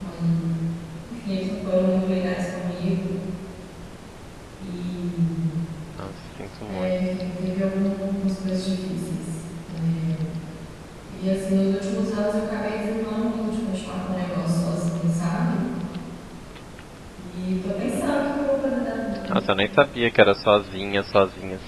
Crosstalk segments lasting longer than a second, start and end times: none

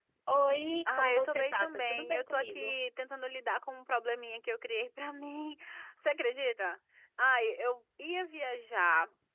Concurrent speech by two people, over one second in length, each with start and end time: 0.9-2.7

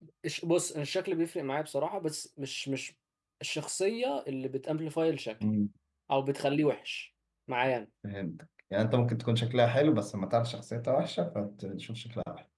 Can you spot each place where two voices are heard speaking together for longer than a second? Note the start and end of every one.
none

